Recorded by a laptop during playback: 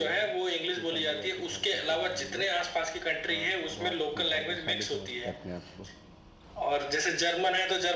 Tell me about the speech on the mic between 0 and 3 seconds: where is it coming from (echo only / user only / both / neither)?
both